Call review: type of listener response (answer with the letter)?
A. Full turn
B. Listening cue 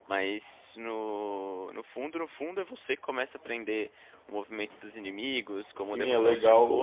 A